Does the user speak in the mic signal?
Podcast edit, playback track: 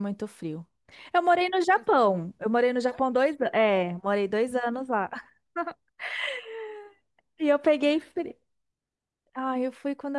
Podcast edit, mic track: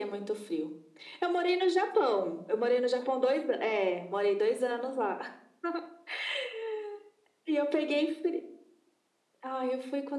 No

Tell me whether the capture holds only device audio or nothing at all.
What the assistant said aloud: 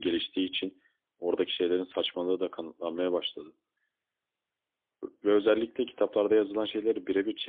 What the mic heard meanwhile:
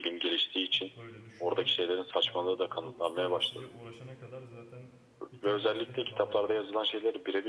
No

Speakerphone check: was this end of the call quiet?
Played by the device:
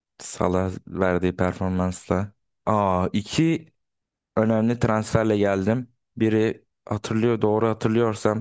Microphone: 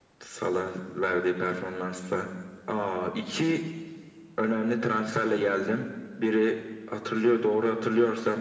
Yes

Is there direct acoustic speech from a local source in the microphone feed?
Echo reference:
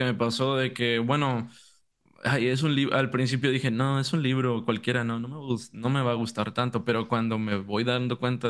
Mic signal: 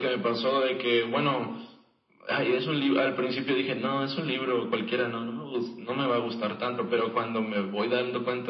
No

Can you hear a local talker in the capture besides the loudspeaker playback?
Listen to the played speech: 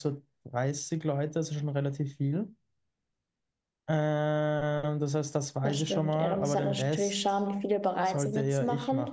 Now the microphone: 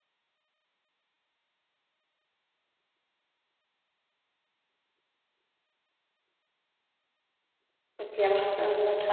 Yes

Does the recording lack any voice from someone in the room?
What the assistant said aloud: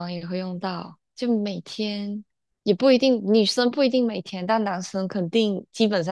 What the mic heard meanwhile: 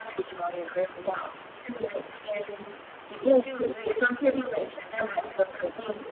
Yes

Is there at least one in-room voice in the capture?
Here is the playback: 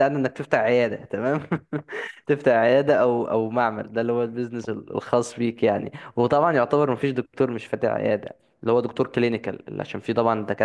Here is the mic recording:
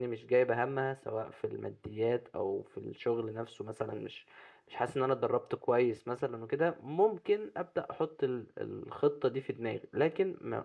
Yes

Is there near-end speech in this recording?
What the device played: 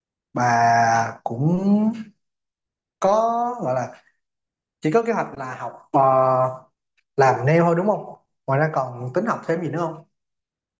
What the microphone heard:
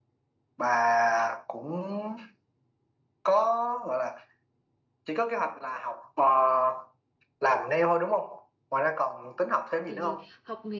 Yes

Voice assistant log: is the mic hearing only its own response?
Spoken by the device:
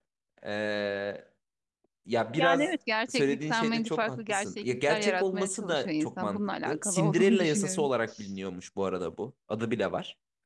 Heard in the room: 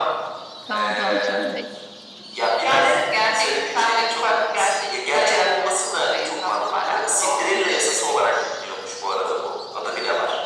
No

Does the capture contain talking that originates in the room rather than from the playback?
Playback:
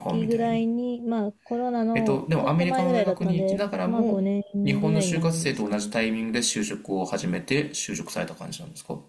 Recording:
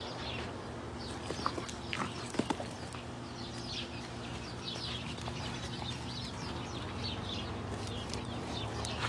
No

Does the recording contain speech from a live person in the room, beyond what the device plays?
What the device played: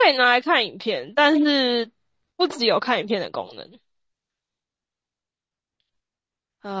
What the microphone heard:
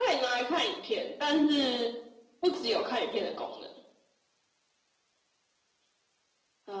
No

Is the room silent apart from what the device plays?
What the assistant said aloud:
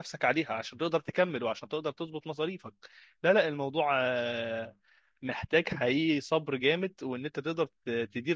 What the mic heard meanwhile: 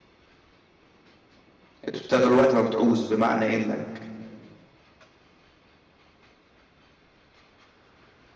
No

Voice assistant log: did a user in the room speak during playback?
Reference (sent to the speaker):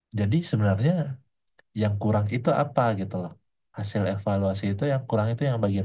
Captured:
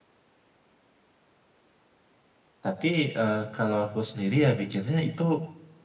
Yes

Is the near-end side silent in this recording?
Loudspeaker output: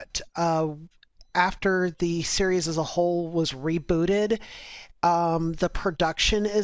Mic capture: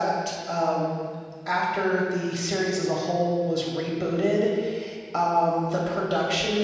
Yes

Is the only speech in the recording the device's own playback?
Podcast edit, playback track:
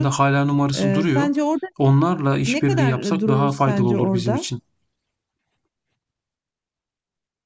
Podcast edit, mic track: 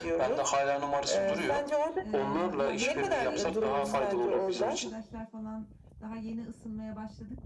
No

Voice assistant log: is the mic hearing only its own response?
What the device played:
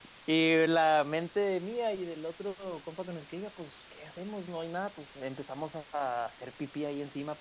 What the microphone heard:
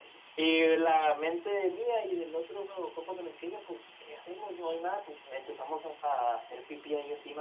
Yes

